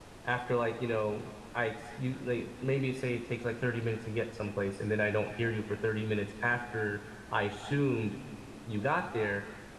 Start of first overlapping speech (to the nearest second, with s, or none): none